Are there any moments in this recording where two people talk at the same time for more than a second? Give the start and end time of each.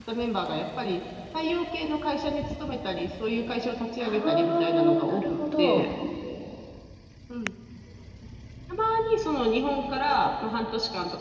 4.0-5.8

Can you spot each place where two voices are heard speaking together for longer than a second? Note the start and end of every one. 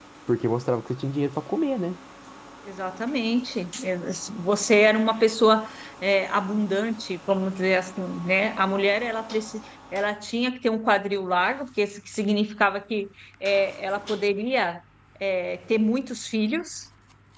none

